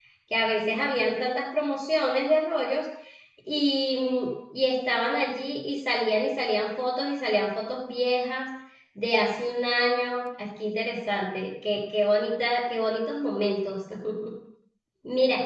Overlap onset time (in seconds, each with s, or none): none